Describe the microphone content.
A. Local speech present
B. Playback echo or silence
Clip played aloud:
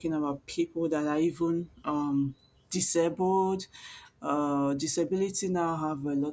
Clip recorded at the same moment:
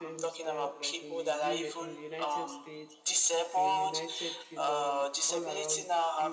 A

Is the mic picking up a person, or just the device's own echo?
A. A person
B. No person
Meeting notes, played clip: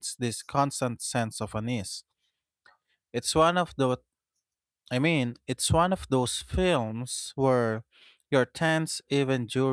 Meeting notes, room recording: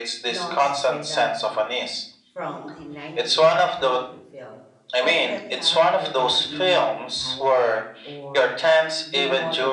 A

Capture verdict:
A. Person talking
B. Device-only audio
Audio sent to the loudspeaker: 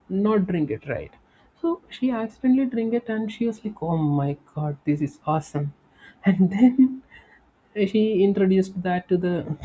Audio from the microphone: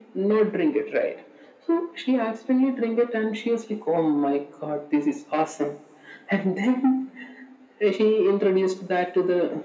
B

